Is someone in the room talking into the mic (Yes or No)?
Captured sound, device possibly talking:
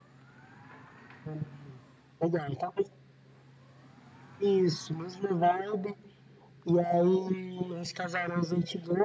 No